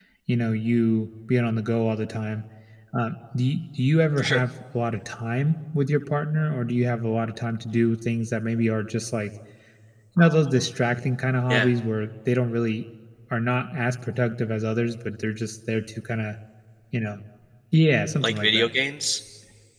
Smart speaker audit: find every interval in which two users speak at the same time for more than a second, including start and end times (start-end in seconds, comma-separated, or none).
none